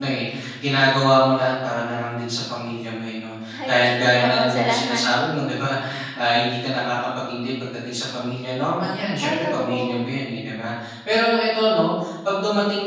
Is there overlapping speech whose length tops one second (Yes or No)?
Yes